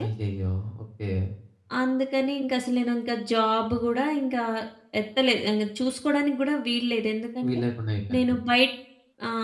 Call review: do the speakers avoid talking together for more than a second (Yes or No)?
Yes